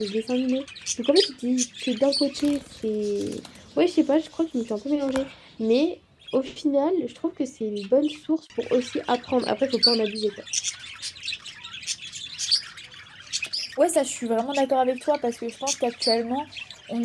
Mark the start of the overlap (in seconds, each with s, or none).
none